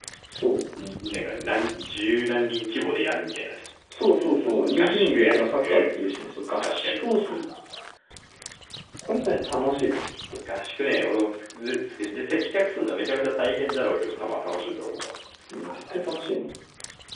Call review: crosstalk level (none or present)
present